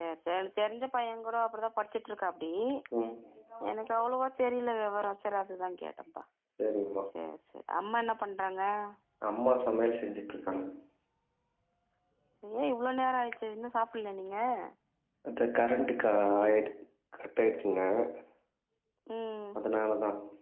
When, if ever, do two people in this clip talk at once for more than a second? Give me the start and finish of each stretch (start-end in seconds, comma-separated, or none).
none